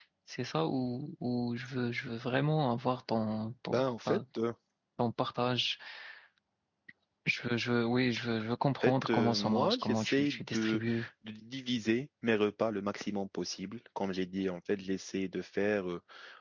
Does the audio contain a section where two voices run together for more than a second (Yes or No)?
Yes